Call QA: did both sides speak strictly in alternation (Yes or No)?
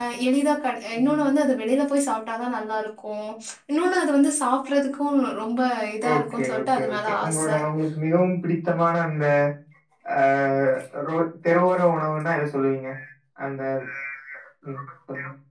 No